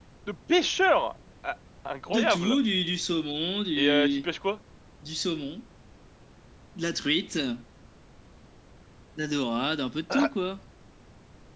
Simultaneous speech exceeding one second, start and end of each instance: none

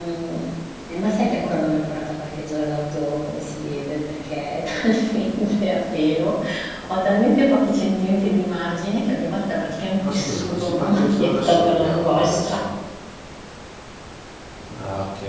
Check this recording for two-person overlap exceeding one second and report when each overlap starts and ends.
10.0-12.7

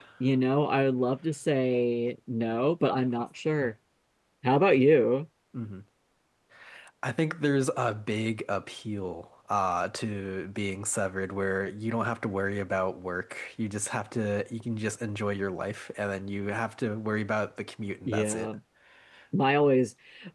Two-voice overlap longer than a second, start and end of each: none

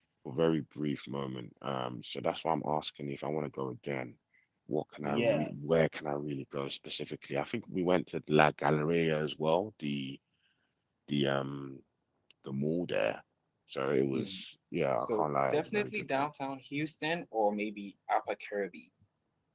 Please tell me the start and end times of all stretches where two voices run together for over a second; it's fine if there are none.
15.0-16.3

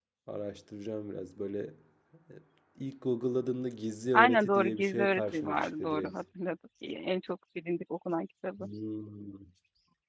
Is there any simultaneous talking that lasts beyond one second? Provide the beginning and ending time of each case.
4.1-6.1

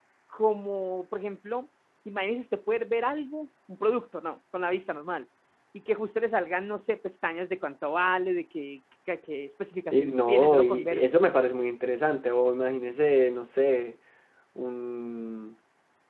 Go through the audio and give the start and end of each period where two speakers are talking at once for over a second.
9.9-11.2

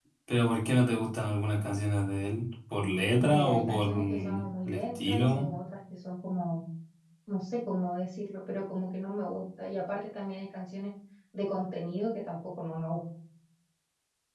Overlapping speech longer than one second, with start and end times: 3.3-5.5

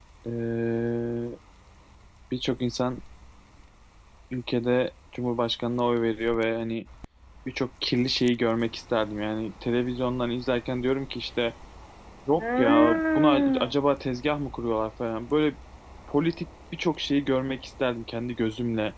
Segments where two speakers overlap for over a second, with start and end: 12.3-13.8

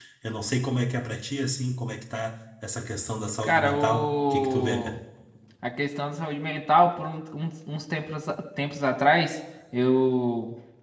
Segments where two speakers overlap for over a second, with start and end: 3.4-5.0

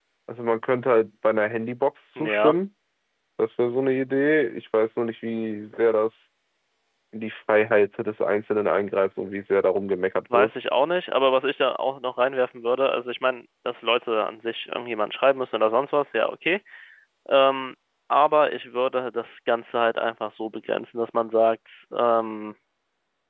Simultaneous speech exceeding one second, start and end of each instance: none

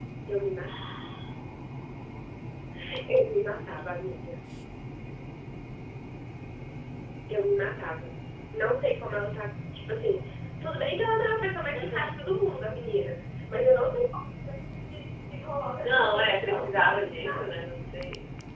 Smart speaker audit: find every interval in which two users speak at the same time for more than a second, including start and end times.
15.8-17.6

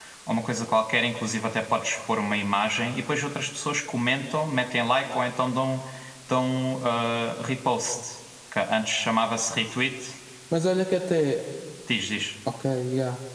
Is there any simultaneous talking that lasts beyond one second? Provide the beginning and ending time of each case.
none

